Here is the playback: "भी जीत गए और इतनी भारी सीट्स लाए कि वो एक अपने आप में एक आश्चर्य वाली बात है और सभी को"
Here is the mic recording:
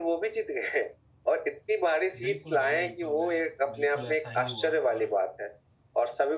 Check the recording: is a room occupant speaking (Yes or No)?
Yes